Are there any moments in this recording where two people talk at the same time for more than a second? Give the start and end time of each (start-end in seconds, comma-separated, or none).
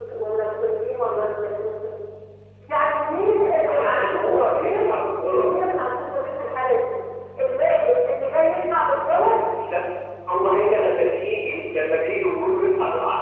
3.7-4.9